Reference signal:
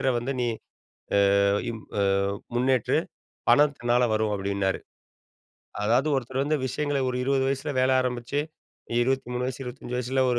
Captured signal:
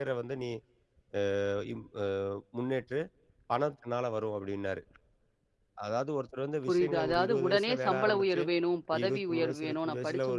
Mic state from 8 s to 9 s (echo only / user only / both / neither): both